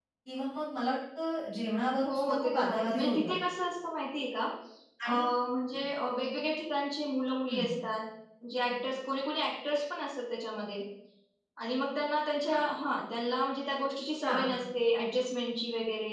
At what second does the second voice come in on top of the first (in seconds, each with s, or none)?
2.1 s